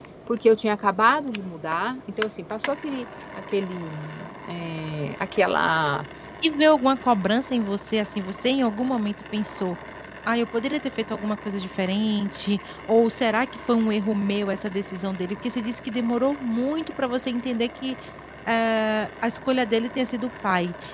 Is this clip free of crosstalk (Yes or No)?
Yes